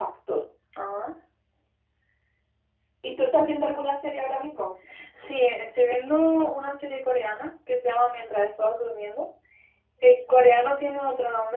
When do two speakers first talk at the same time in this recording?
none

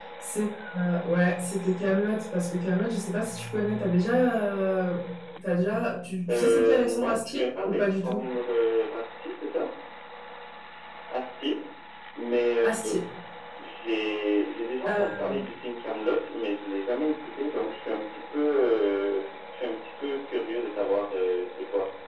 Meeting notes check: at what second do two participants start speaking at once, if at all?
6.3 s

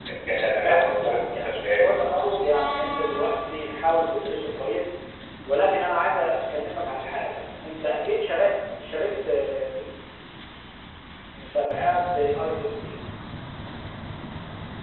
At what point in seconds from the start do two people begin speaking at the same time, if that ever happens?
0.6 s

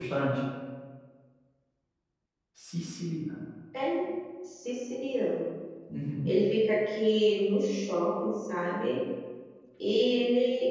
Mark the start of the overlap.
none

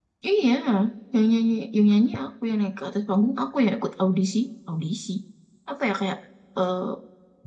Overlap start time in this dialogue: none

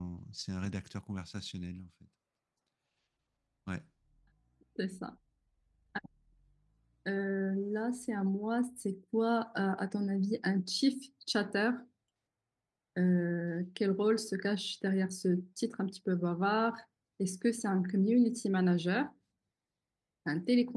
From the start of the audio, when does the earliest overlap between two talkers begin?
none

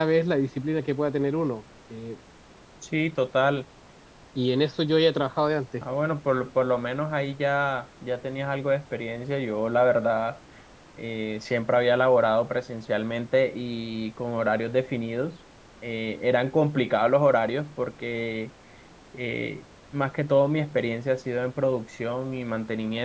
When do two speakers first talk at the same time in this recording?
none

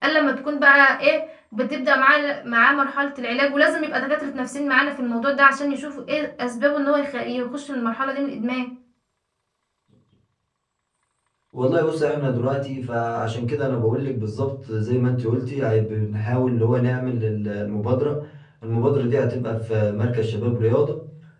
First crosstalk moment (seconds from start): none

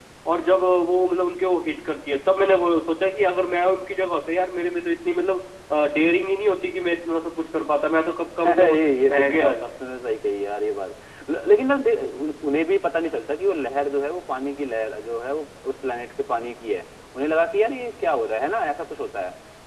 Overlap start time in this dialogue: 8.4 s

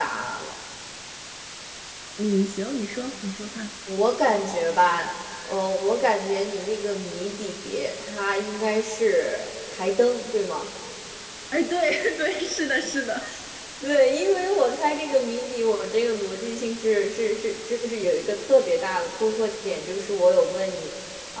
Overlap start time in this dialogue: none

